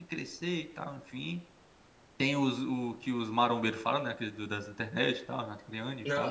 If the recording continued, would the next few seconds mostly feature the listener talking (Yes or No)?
Yes